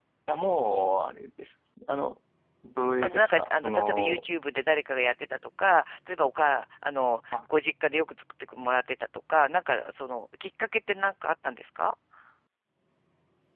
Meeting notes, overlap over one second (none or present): present